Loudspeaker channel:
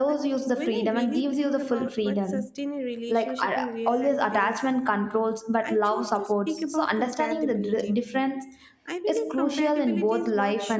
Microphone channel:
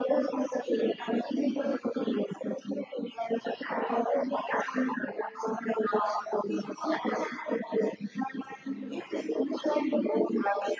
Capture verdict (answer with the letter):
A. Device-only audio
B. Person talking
A